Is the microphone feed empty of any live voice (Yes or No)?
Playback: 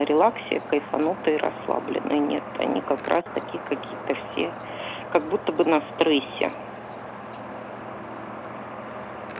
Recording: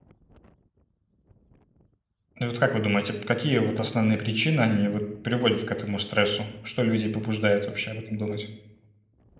No